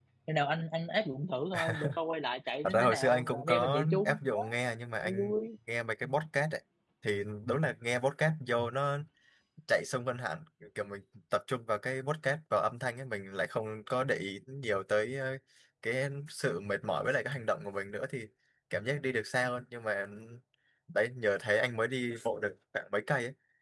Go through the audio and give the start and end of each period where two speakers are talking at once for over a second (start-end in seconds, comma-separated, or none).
2.6-4.4